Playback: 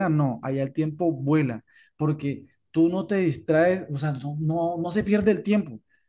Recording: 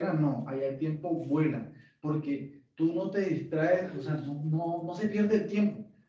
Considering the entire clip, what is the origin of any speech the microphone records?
both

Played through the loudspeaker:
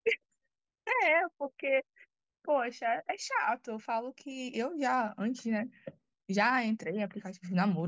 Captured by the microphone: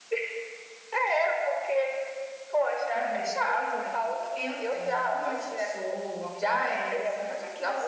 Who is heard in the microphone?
both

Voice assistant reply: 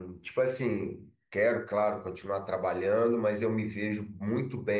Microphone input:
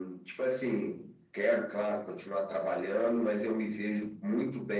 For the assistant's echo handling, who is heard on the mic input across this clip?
echo only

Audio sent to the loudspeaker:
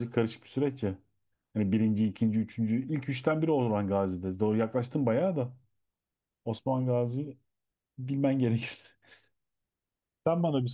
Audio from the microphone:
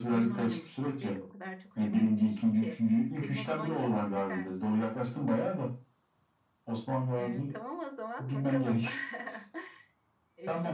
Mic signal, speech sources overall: both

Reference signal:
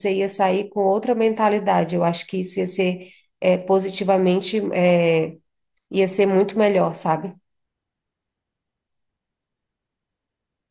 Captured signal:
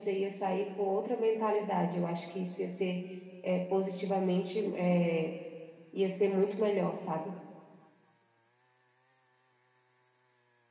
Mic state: echo only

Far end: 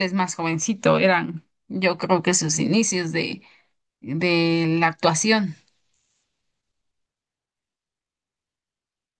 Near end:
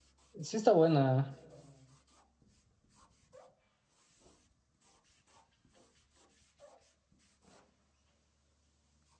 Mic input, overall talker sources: user only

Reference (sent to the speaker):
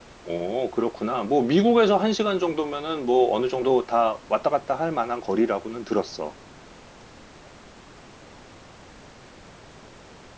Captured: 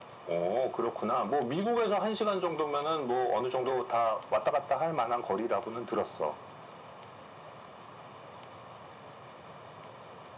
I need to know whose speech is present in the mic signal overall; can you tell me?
echo only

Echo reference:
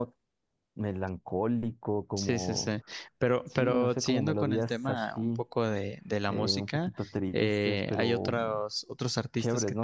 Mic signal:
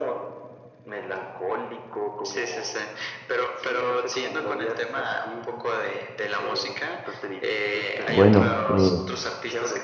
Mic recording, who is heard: both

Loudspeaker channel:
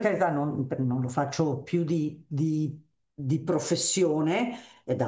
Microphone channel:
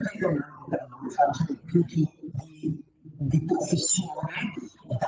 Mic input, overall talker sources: echo only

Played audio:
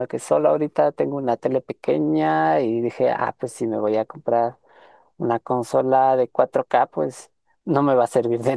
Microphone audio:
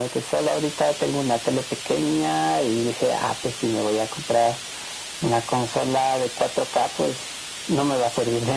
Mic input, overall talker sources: echo only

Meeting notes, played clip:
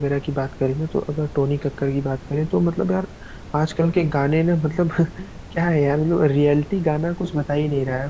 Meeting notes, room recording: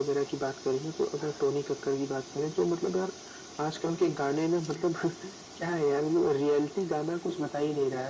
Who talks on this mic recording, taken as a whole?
echo only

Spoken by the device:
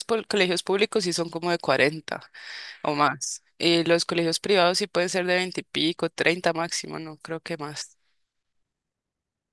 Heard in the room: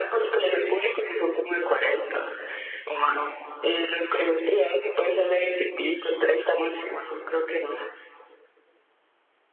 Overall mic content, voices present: echo only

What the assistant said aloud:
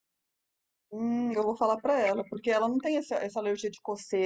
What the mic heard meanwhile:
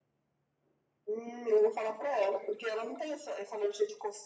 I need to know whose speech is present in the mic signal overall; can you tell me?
echo only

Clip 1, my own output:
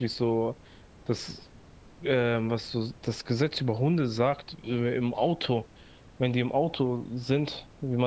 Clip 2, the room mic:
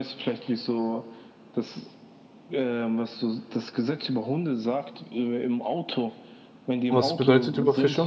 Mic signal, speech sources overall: both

